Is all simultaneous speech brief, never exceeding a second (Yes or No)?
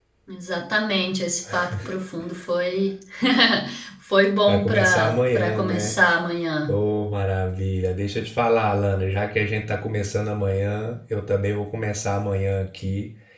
No